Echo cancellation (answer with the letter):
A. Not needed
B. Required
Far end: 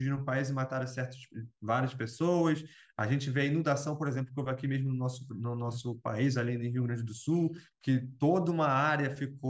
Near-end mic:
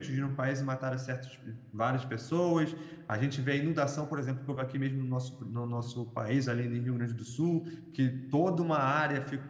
B